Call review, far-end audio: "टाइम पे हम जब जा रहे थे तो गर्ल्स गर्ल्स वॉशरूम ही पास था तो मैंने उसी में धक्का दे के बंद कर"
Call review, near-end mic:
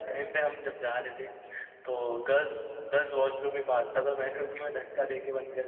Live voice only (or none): none